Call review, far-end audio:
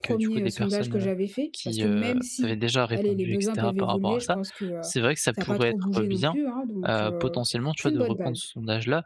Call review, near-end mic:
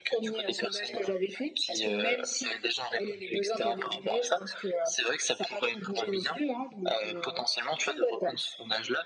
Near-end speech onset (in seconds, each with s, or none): none